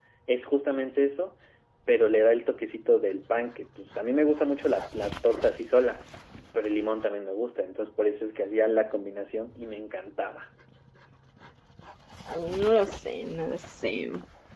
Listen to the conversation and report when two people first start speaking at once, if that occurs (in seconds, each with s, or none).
none